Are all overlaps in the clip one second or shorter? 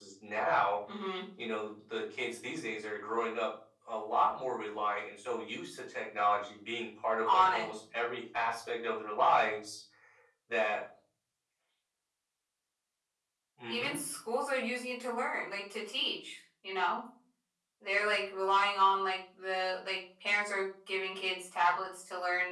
Yes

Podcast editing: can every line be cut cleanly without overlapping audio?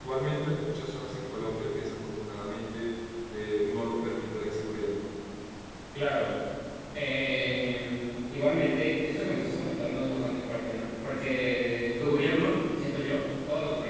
Yes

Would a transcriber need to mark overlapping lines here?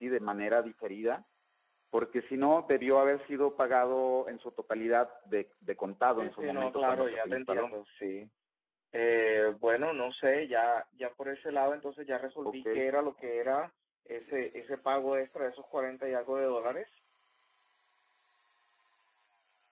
Yes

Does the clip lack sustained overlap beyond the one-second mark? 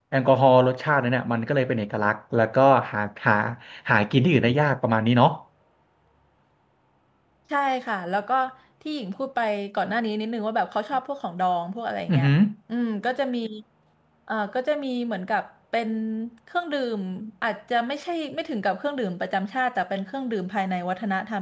Yes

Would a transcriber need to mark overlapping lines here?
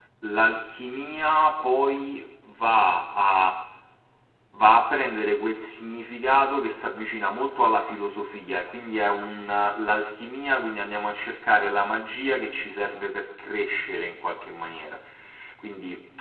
No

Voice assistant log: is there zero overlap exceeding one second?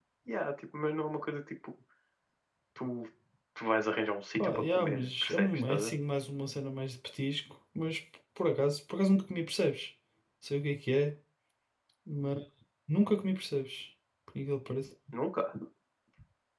No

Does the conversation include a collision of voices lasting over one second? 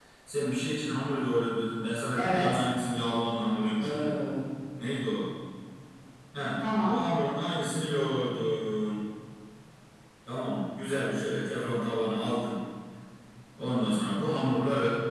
No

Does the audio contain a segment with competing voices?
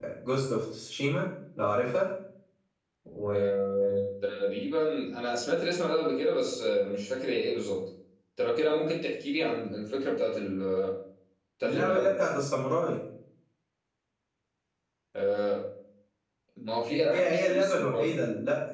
Yes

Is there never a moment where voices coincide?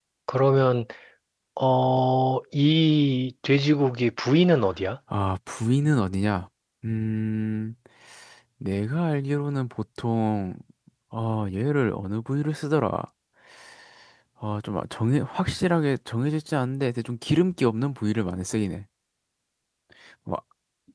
Yes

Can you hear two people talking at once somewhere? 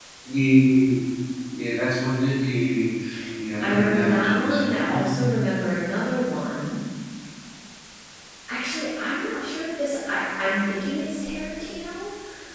Yes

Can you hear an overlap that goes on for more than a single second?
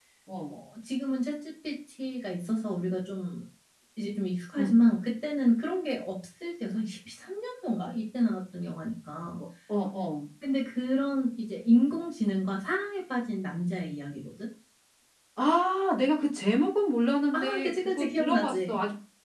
Yes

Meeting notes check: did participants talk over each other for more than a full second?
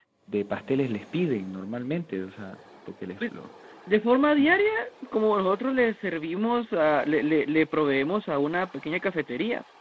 No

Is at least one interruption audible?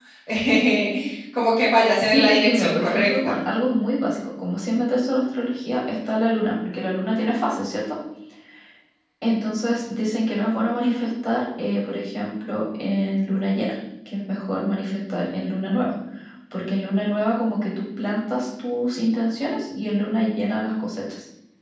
Yes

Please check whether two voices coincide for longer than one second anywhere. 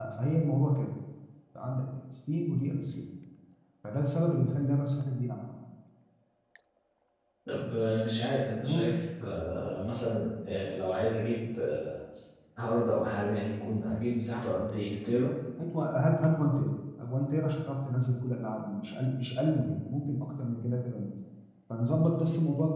No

